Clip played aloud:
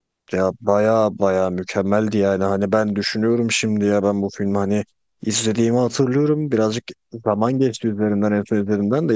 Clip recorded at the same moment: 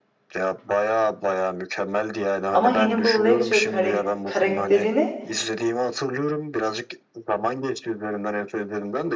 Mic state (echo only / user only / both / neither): both